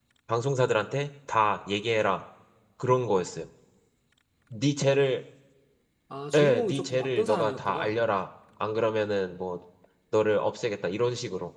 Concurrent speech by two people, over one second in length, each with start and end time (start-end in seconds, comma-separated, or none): 6.3-7.9